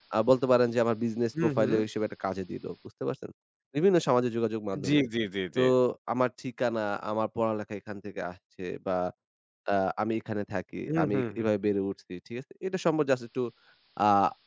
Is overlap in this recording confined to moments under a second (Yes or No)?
Yes